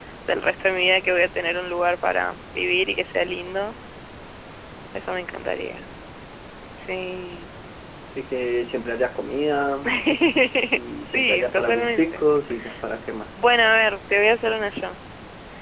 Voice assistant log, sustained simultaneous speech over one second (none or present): present